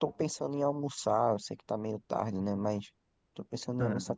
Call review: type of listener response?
listening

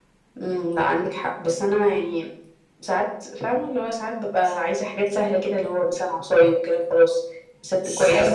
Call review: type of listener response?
taking over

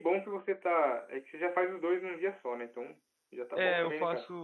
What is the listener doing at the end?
taking over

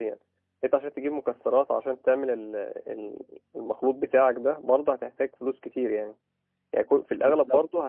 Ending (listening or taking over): listening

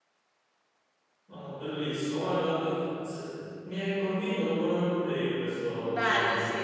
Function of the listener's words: taking over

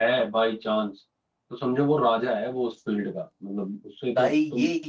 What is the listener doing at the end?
taking over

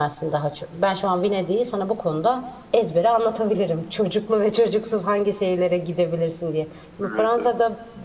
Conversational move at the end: listening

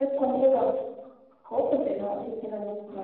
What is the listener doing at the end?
taking over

